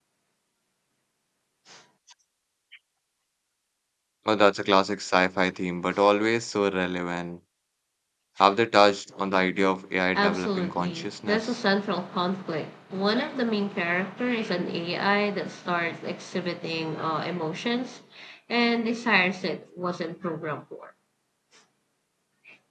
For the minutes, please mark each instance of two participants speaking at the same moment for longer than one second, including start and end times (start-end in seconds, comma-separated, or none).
10.2-11.5